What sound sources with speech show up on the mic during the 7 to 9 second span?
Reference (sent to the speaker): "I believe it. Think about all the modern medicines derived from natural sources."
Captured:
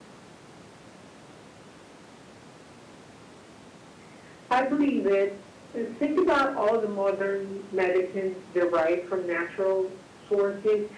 echo only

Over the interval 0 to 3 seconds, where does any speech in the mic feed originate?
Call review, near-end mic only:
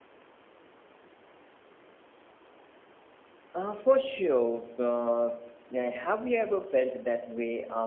neither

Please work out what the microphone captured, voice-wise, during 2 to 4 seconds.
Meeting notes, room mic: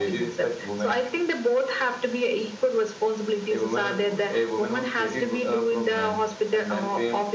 echo only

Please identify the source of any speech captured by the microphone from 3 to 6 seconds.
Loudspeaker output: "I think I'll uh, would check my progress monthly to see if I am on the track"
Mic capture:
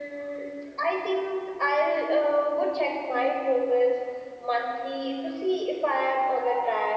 echo only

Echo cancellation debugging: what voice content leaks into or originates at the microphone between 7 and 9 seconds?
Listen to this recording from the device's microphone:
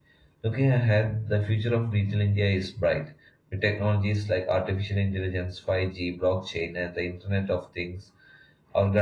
user only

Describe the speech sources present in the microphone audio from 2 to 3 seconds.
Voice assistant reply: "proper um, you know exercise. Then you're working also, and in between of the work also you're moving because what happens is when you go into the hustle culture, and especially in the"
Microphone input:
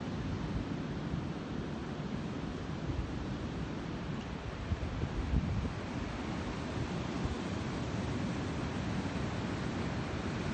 neither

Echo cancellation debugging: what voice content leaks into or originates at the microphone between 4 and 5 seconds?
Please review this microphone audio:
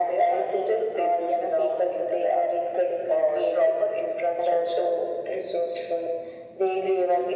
echo only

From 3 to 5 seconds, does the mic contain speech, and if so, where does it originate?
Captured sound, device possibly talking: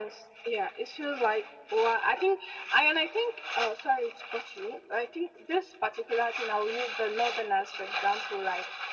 echo only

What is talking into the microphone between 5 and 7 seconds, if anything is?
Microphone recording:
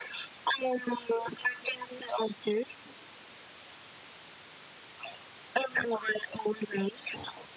echo only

